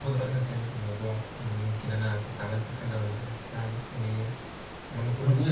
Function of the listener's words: taking over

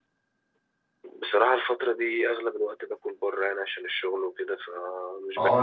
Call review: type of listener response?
taking over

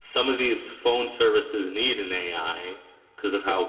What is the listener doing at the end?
listening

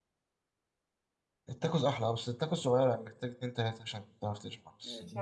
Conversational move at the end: taking over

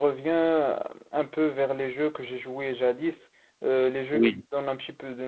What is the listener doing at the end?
listening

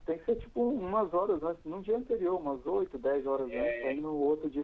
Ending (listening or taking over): listening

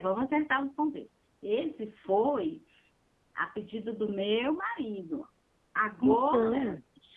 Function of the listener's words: listening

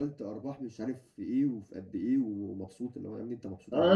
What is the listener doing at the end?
taking over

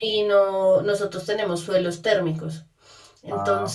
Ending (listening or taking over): listening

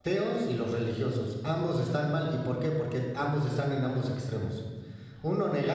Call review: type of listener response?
listening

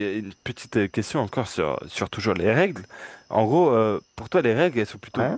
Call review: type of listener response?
listening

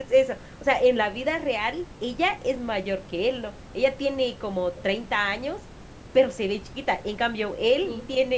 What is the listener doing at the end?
listening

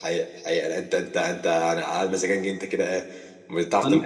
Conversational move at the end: listening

